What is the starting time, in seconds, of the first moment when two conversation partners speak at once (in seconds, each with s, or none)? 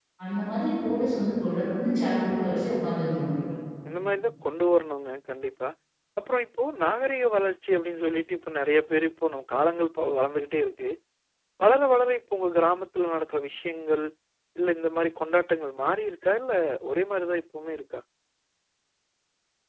none